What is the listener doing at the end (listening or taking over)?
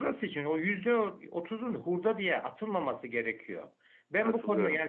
listening